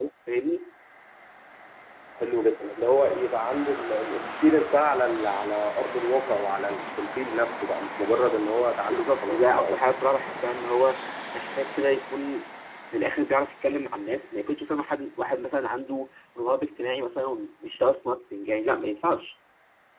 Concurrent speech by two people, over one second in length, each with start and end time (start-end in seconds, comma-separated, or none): 8.5-9.9